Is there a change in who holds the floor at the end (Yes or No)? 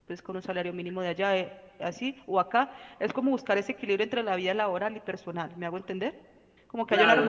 Yes